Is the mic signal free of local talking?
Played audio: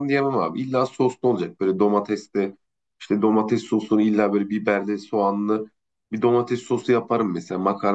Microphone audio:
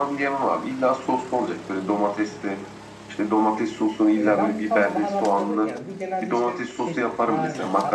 No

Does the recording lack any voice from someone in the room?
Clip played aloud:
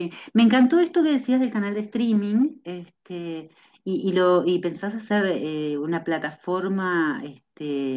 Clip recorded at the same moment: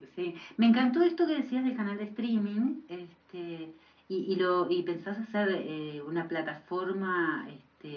Yes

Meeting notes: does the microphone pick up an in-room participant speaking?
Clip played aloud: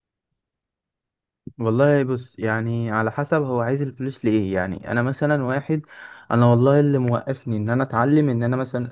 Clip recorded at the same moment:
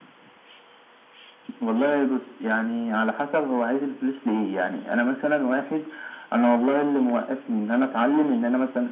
No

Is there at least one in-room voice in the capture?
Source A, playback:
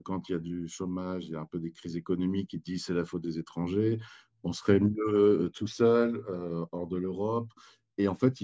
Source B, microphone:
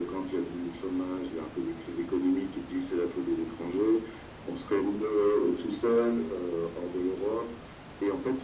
No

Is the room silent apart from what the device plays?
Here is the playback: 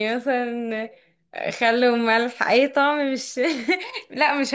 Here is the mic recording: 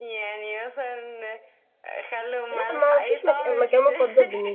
No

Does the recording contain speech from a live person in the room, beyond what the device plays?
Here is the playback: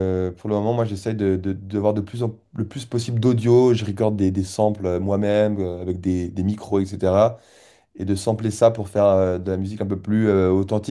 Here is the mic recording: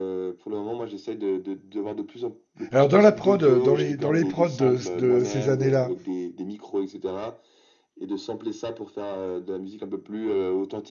Yes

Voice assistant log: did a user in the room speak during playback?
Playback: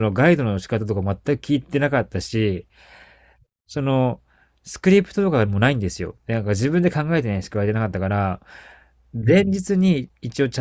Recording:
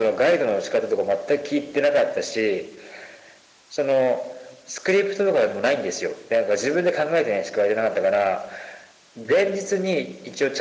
No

